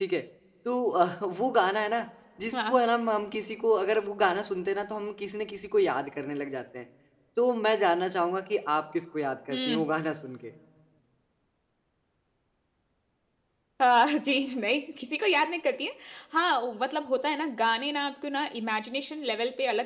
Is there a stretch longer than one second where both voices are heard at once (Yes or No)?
No